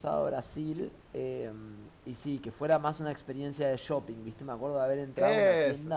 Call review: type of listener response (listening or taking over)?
listening